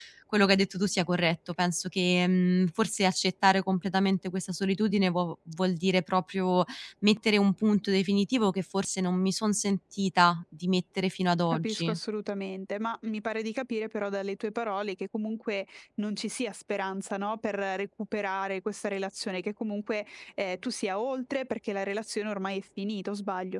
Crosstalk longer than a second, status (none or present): none